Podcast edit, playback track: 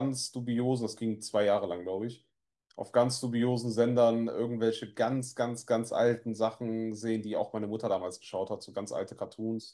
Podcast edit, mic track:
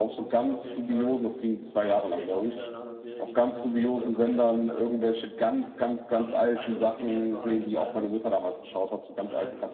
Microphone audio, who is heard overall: both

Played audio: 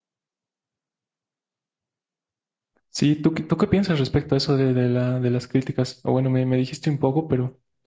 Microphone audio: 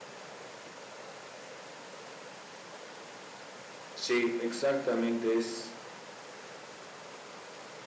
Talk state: user only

